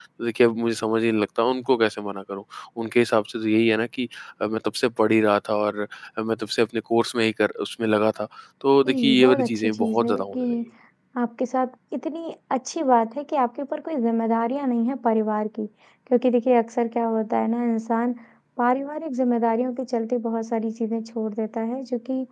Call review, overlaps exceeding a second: present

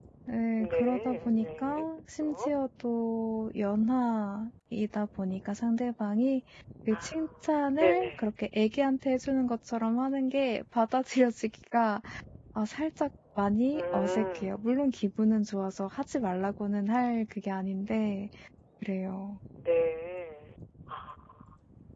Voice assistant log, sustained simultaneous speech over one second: present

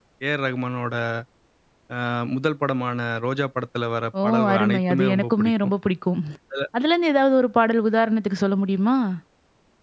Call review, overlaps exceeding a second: present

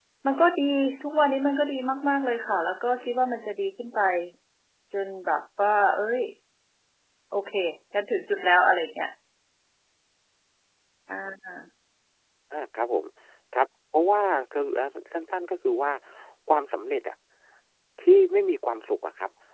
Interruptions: none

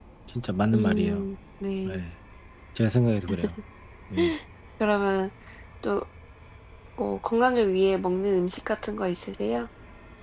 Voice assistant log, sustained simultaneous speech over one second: none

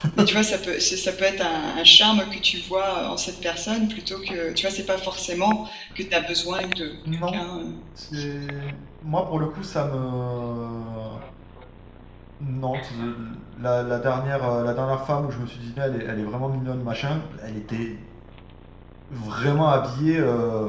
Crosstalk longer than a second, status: none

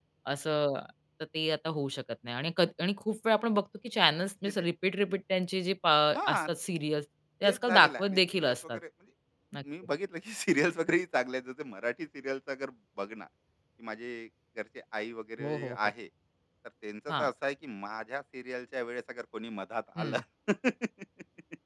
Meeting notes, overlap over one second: present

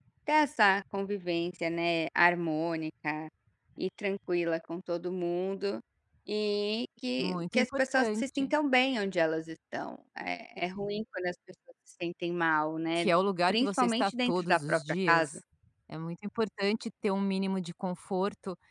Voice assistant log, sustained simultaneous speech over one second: present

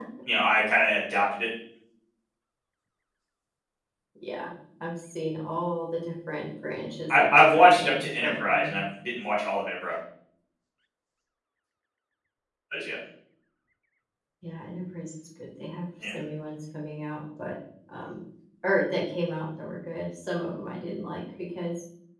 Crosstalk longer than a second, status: present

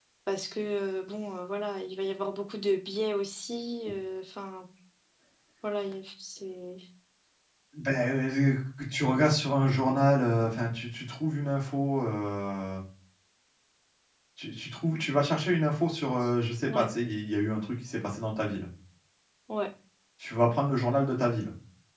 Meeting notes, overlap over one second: none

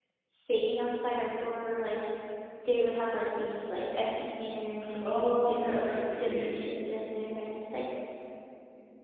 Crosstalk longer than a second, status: present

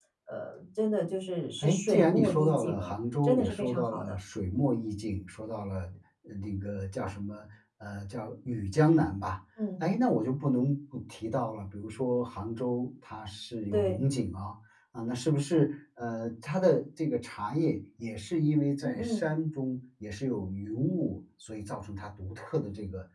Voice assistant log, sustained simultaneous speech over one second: present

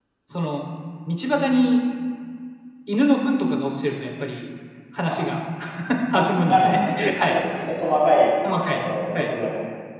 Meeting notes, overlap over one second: present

